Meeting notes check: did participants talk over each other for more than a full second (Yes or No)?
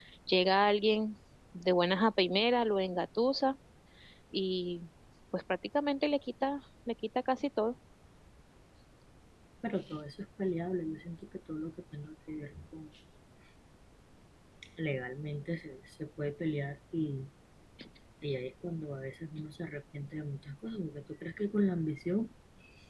No